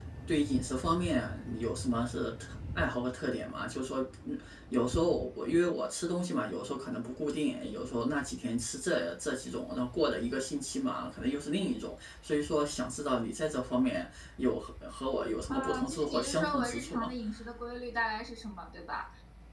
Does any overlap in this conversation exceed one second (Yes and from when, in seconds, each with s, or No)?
Yes, from 15.5 s